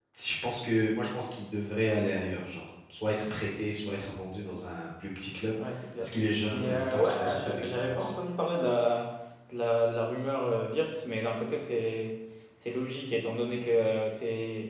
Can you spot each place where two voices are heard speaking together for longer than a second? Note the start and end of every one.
6.5-8.1

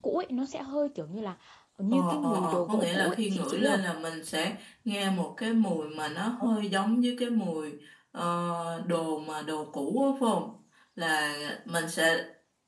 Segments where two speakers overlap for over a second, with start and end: 1.9-3.8

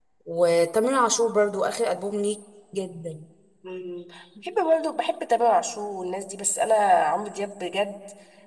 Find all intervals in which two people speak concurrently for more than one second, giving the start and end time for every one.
none

